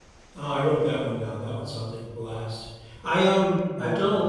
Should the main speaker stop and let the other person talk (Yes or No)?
No